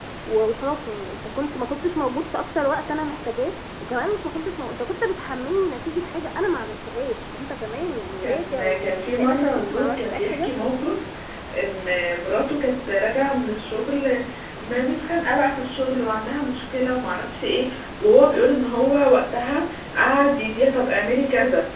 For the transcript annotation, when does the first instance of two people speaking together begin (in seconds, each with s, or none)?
8.2 s